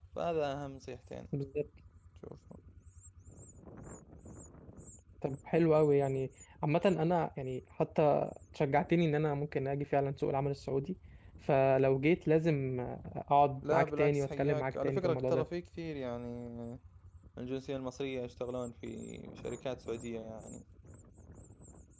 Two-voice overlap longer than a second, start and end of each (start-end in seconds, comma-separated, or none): 13.7-15.5